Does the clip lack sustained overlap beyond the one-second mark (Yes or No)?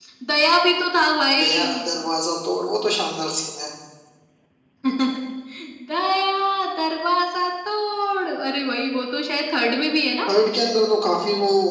Yes